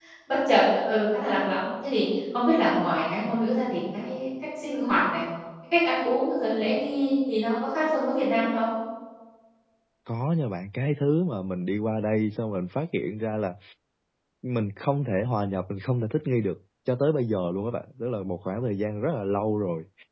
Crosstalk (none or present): none